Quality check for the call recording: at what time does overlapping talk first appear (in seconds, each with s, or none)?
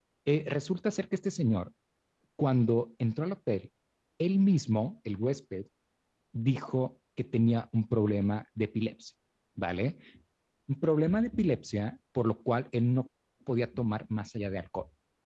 none